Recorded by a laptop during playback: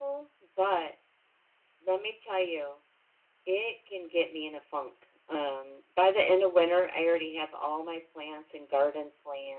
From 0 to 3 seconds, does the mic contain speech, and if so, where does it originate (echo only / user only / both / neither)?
echo only